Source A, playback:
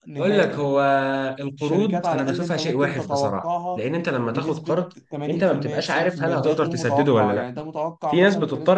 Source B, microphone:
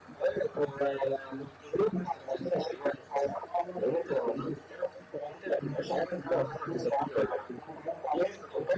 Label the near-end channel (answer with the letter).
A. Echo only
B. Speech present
A